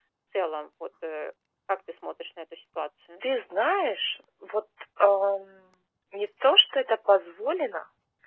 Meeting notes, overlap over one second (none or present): none